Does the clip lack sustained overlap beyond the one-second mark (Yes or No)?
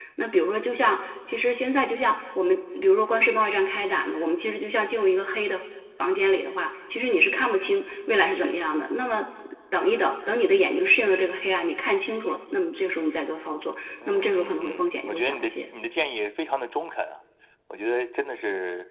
No